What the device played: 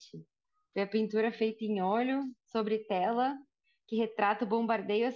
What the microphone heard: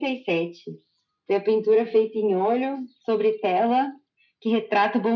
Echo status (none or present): present